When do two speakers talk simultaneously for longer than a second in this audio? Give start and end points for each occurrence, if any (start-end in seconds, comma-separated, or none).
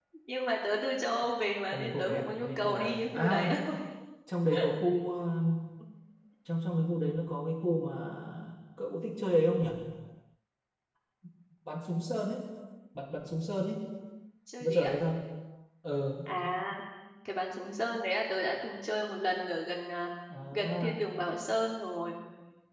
1.7-3.5